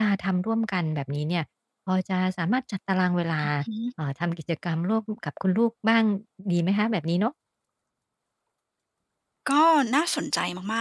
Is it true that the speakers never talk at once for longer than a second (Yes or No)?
Yes